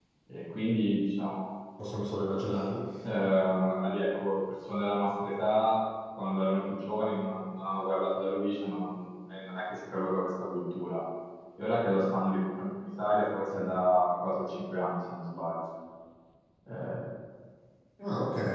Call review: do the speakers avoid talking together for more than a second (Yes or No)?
Yes